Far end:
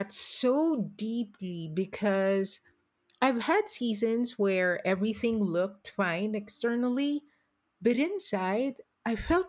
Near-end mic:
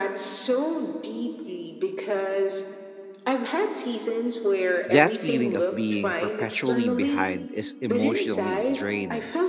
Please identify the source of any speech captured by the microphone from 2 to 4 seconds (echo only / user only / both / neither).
echo only